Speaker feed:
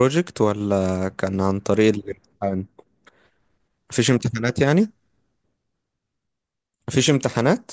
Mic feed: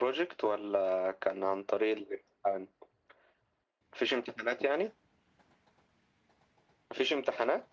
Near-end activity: none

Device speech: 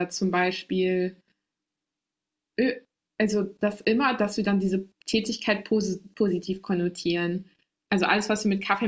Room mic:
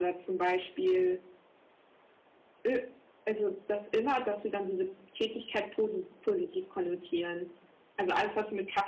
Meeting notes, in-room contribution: none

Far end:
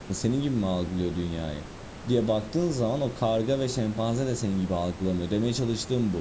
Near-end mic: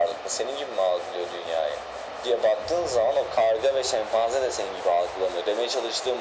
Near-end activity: none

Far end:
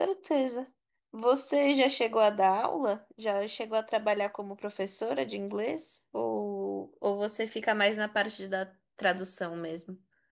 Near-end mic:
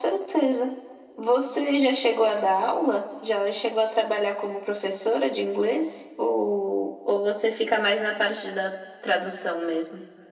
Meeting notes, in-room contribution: none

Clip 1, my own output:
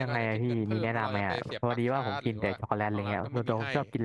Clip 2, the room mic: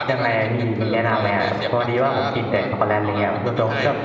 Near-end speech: none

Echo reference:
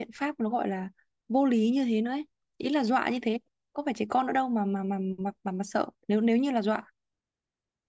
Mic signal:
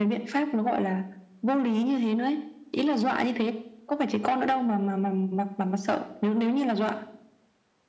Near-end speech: none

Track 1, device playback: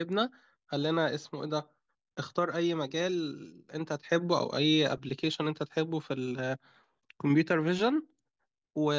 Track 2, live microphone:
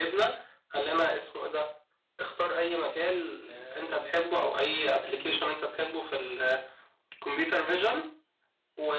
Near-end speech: present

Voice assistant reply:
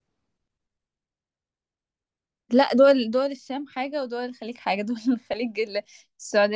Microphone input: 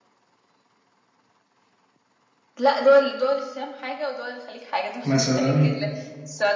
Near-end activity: present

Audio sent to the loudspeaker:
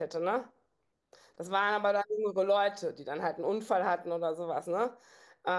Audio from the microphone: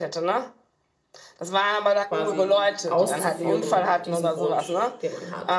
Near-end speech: present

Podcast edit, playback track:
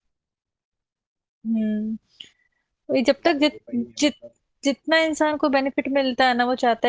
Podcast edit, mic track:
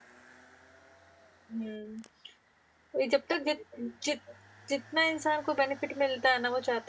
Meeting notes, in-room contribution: none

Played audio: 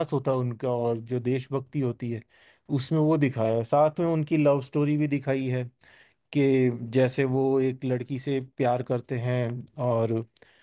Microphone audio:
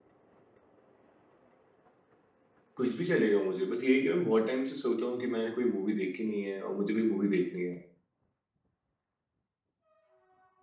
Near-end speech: present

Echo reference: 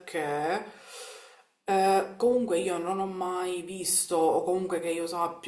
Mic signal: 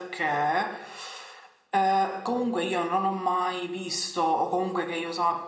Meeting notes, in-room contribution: none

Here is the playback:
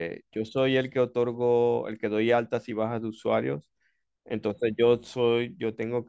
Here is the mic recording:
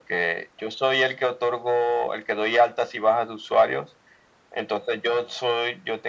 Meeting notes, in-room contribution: none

